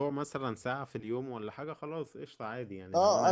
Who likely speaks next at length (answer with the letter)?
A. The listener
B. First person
A